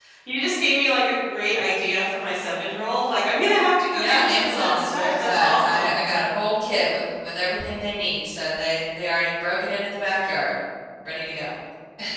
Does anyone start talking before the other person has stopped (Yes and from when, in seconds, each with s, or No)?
Yes, from 3.9 s